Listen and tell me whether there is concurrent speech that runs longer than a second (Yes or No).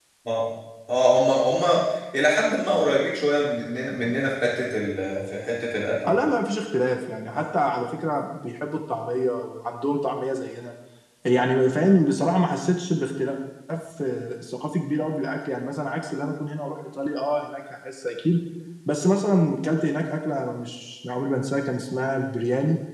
No